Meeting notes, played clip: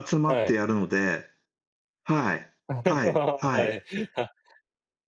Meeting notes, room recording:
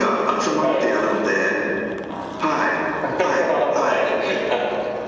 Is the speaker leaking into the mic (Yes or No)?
Yes